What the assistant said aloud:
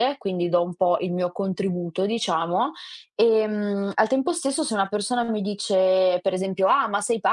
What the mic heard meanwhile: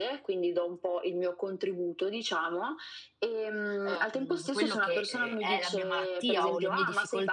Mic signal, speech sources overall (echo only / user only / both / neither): both